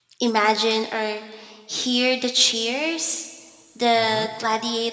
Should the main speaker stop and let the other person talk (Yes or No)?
No